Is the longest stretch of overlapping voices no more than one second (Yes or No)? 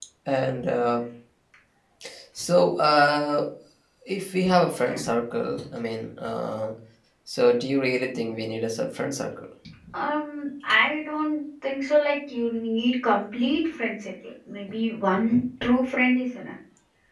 Yes